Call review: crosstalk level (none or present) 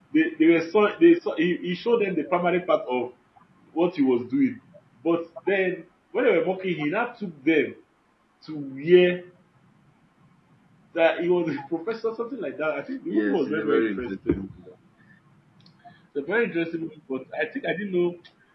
present